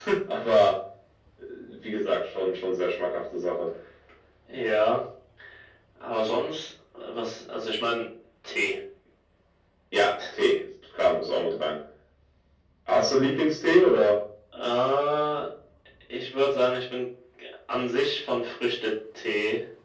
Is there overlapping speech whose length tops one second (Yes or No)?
No